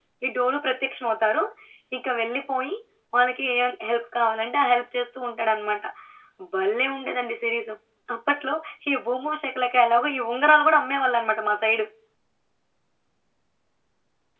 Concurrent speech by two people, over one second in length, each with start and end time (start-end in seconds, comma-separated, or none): none